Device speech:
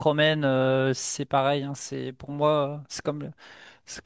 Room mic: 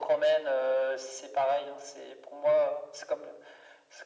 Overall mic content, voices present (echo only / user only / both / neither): echo only